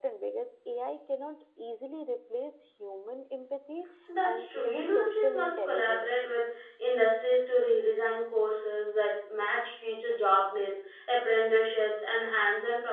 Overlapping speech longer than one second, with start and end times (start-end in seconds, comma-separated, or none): 4.2-6.1